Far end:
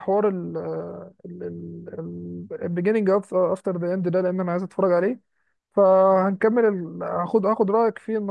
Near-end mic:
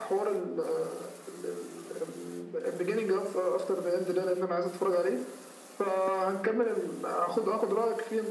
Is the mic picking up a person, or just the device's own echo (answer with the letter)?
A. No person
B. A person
A